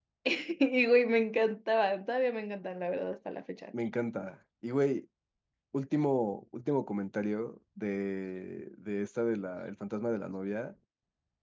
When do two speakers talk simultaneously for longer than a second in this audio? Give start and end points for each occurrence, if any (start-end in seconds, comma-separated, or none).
none